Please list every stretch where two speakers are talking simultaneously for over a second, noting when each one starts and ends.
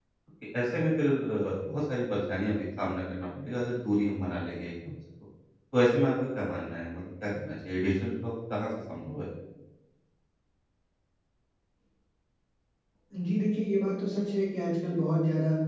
none

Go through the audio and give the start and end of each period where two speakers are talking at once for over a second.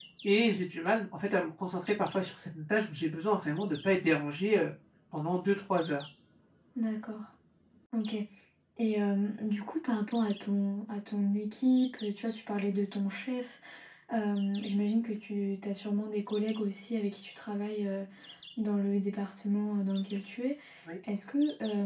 none

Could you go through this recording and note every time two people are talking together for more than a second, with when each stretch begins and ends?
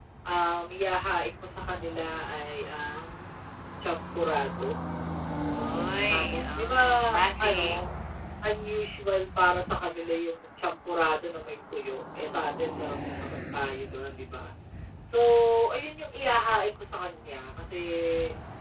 6.1-7.8

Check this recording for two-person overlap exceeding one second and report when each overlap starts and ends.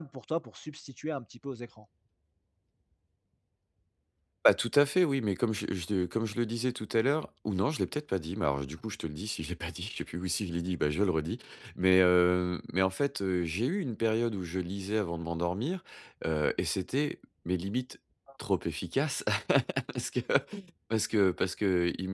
none

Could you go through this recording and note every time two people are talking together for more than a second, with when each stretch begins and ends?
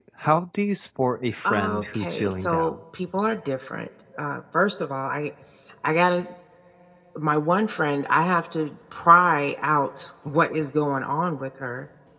1.5-2.7

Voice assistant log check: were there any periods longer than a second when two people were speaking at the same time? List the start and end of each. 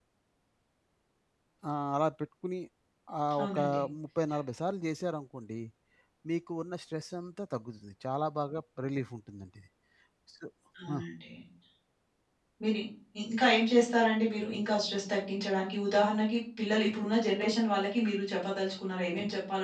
none

